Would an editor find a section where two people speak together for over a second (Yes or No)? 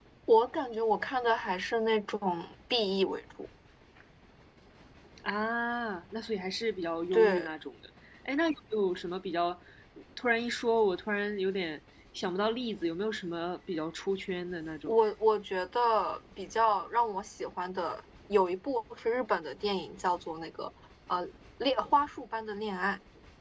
No